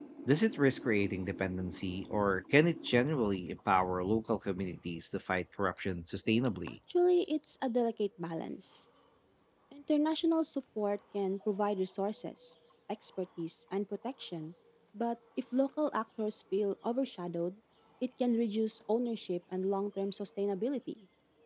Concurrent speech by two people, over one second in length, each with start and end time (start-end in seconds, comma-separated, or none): none